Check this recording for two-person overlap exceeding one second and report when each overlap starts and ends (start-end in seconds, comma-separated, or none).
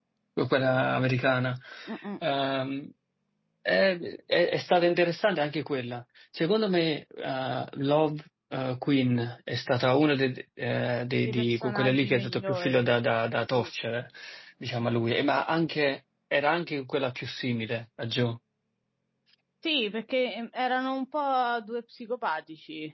11.2-12.9